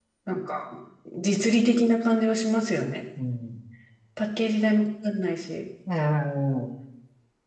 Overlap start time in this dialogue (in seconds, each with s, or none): none